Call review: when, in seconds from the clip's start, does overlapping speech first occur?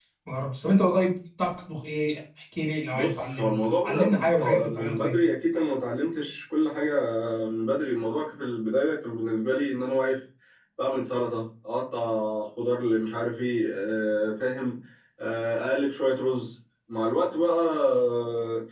2.9 s

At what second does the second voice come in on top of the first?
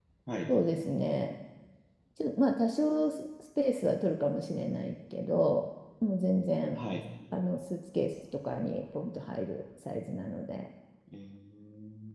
none

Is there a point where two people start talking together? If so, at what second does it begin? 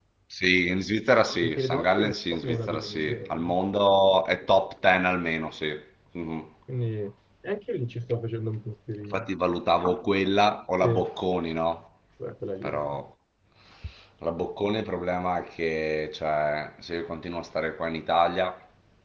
1.4 s

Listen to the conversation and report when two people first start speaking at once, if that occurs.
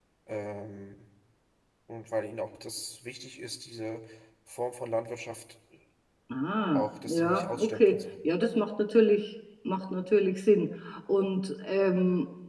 6.7 s

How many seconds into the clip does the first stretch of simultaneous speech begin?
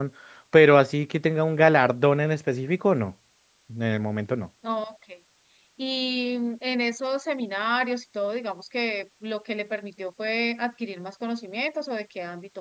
none

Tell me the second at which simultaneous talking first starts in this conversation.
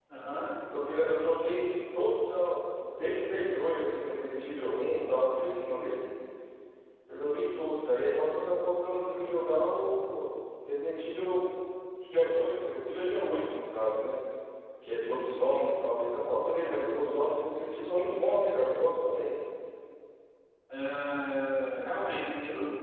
none

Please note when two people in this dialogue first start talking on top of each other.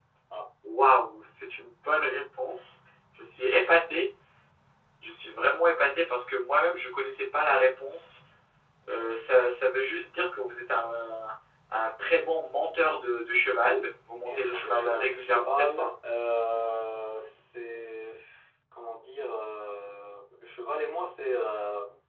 14.2 s

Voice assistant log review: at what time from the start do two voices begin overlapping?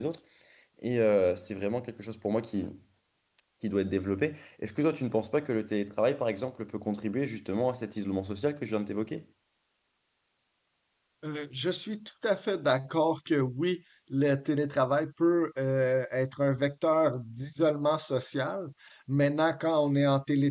none

